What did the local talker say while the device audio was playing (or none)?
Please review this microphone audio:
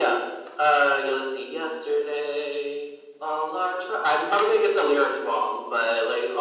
none